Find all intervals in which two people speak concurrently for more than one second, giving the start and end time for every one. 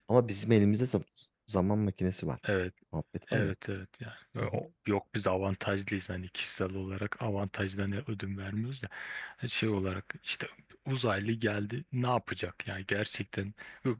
none

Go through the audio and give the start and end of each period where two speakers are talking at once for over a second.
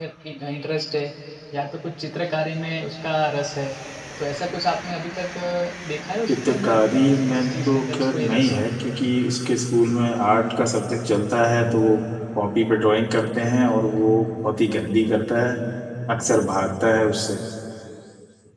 6.3-8.5

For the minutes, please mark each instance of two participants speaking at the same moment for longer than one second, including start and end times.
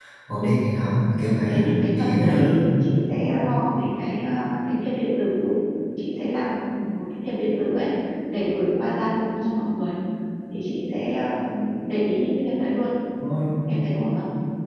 1.2-2.6

